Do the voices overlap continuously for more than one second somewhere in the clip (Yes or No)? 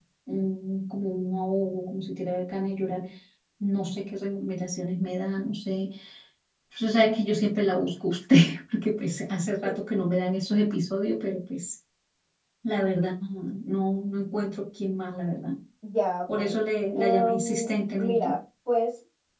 Yes